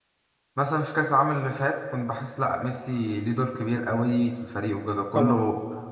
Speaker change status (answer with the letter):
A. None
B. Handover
A